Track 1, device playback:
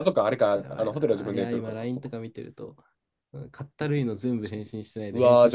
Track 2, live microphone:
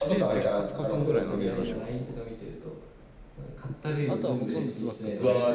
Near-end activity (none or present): present